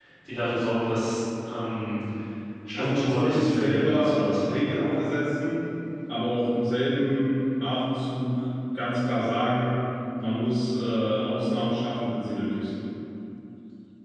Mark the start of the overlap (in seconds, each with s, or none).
2.7 s